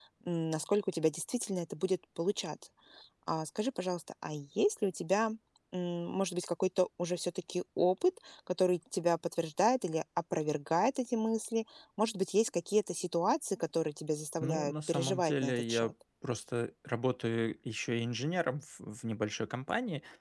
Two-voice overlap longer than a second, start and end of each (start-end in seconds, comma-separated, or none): 14.4-15.9